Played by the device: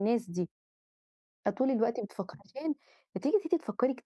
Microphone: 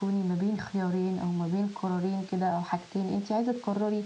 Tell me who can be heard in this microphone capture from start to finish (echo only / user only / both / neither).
user only